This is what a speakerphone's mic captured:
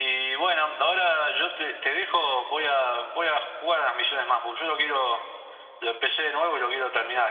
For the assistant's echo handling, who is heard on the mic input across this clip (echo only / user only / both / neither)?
echo only